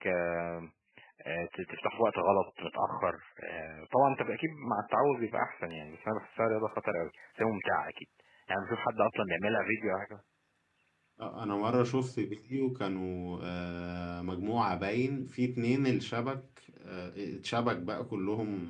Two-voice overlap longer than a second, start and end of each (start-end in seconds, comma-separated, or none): none